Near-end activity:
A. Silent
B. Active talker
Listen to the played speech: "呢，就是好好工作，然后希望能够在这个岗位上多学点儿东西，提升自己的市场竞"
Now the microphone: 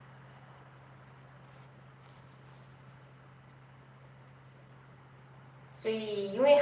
B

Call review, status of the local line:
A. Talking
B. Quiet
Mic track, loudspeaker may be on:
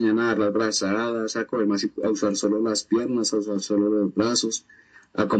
B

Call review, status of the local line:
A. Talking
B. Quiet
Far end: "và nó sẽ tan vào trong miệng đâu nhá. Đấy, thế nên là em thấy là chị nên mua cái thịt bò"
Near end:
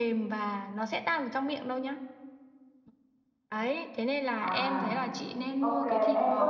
A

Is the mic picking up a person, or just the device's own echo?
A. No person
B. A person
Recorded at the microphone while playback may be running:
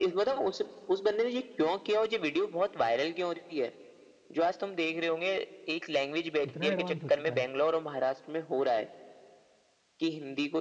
B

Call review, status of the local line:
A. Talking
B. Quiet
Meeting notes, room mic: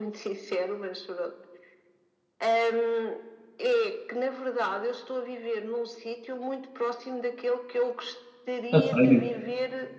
A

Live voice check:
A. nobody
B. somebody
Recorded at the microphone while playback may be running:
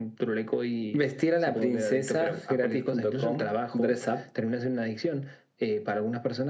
B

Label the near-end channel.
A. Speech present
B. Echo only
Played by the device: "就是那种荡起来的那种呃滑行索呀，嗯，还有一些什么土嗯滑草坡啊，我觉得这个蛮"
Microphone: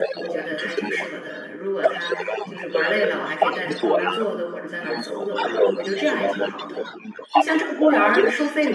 A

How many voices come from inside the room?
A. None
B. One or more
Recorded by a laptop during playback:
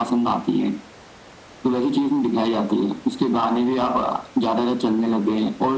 A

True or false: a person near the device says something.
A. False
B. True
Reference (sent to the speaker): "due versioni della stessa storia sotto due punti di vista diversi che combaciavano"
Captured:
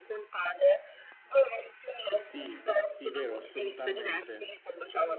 B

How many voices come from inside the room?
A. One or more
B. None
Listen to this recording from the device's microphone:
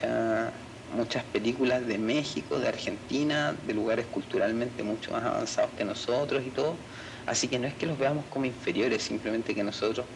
B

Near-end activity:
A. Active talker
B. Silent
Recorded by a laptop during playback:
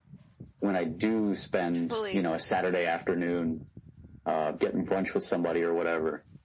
A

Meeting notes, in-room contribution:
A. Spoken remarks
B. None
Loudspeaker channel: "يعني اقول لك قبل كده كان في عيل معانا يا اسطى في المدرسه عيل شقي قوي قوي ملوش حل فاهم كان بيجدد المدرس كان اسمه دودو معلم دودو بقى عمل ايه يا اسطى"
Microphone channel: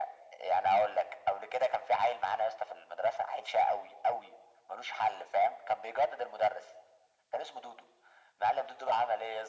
B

